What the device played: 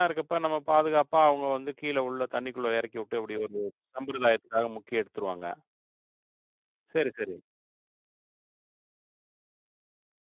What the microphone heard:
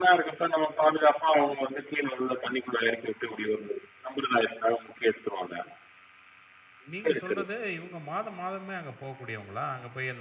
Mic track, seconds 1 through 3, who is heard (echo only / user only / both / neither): echo only